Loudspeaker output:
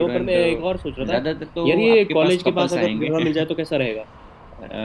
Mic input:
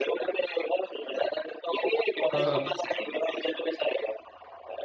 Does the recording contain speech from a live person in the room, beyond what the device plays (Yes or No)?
Yes